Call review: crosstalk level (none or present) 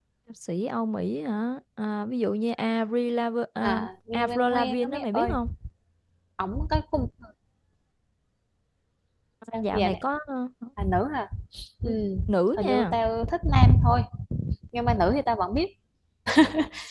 present